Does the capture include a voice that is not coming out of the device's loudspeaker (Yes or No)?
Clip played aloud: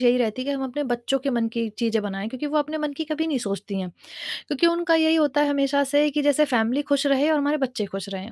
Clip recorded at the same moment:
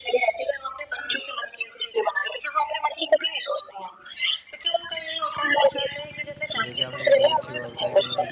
Yes